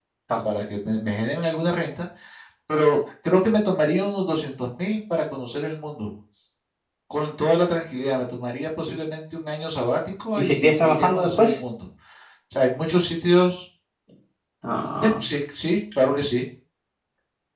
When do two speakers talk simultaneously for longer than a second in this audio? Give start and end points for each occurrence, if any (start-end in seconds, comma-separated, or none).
10.3-11.6